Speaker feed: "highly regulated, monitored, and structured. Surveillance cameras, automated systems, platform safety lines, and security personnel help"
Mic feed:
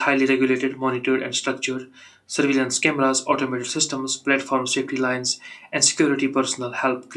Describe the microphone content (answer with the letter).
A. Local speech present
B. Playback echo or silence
B